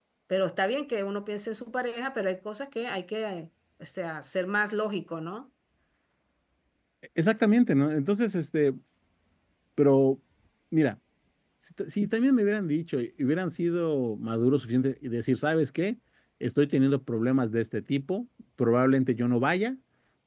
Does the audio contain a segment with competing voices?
No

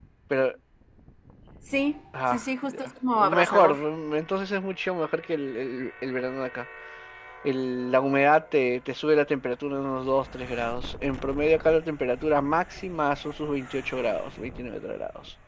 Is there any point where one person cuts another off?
Yes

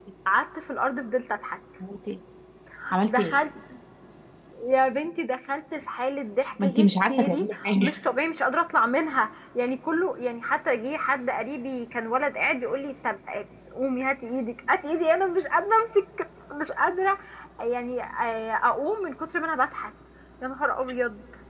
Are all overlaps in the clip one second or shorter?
No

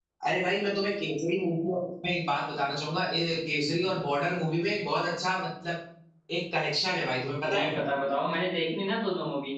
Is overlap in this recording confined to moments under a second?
Yes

